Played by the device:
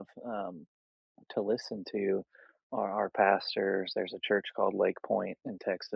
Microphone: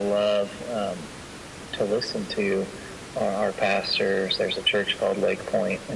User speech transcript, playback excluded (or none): none